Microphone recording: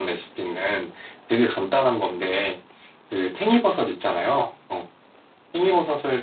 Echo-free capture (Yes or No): Yes